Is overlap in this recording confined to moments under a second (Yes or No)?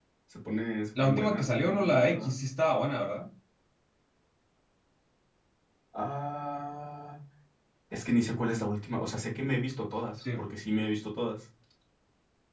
No